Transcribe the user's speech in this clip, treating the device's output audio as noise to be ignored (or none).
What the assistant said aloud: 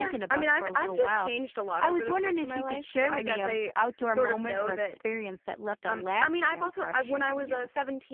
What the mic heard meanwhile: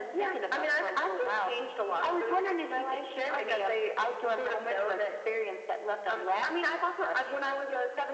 none